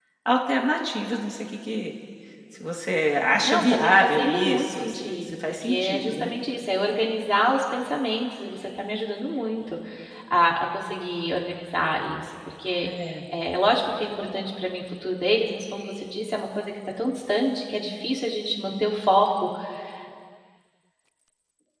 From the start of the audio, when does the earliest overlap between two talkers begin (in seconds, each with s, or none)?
3.4 s